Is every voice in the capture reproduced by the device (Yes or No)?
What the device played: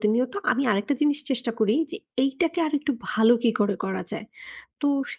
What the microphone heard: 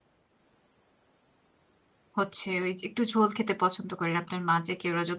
No